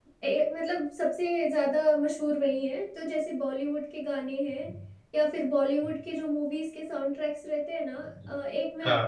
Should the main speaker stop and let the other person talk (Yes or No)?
No